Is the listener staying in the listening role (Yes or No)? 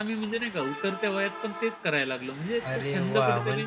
No